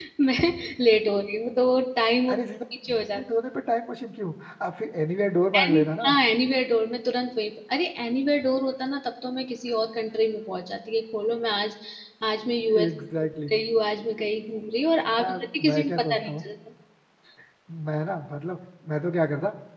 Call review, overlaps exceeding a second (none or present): present